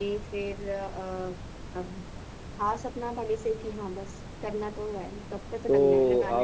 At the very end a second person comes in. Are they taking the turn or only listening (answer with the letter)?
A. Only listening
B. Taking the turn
B